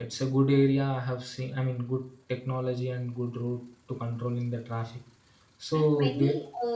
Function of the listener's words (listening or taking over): taking over